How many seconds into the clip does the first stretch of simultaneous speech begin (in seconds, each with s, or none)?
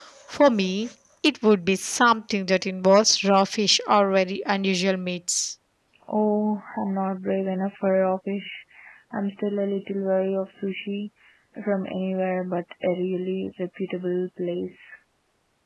none